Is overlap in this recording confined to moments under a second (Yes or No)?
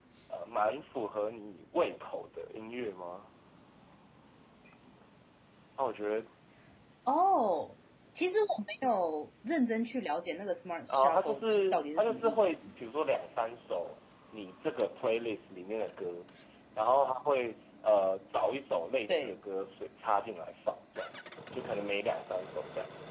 No